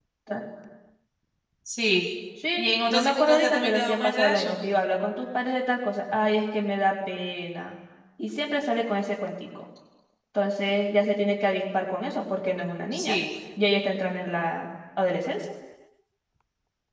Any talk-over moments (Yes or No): Yes